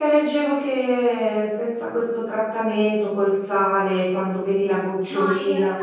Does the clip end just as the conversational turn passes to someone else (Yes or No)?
Yes